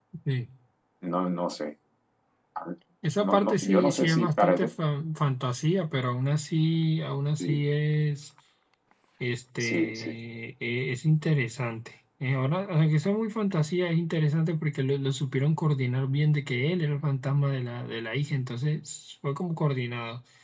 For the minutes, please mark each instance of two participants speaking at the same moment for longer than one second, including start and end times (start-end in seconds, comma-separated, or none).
3.2-4.7